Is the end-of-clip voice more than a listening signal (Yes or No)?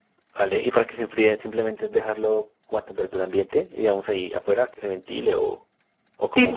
Yes